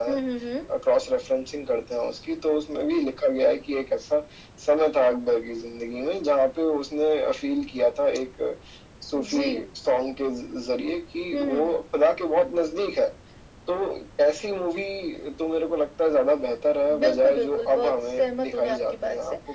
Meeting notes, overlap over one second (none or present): present